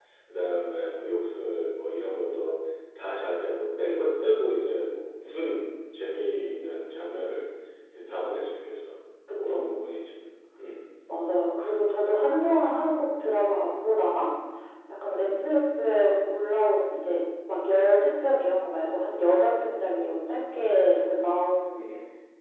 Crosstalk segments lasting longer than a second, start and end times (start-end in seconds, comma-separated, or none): none